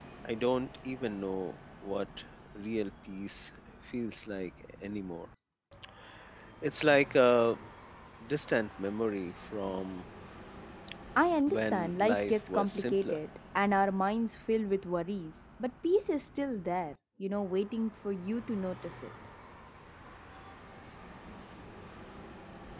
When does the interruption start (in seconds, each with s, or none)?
11.5 s